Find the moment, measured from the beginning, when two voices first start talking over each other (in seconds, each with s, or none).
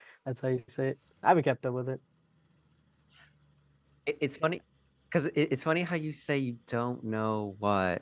none